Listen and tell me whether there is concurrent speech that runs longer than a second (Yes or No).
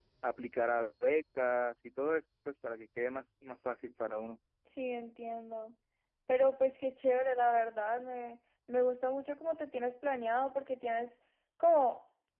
No